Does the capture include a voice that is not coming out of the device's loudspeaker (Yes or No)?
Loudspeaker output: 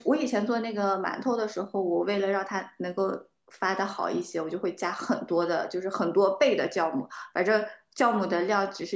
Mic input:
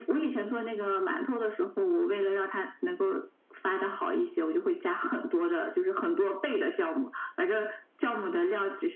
No